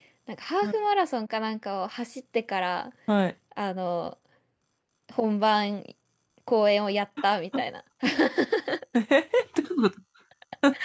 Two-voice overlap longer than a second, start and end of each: none

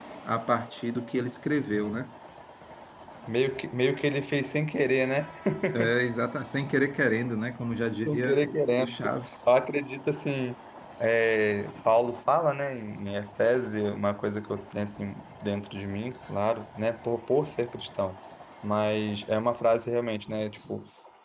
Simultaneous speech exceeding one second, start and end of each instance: none

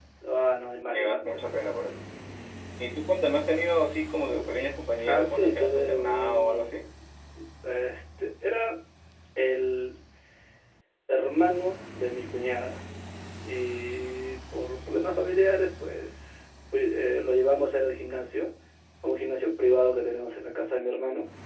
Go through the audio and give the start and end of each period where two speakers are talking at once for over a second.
5.0-6.8

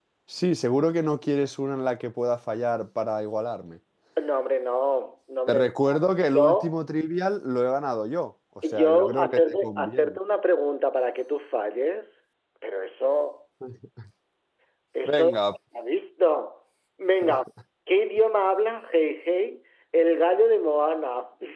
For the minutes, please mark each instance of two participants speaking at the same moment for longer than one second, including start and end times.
8.7-10.2

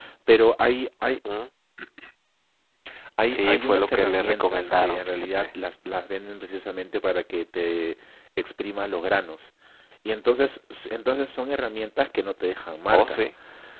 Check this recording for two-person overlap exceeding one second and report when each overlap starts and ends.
3.3-5.5

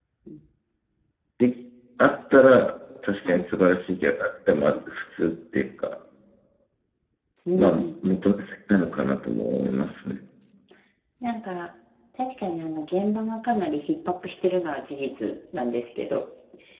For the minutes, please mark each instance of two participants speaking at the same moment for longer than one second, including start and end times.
none

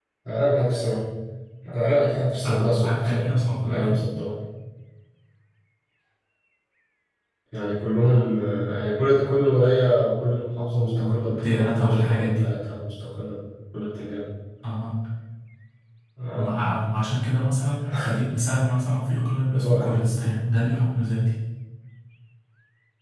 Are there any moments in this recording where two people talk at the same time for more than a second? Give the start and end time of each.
2.4-4.0, 10.7-12.5

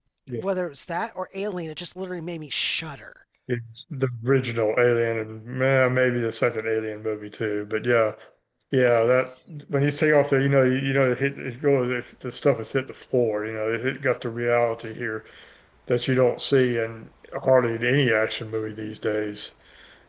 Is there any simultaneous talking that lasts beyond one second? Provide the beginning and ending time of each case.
none

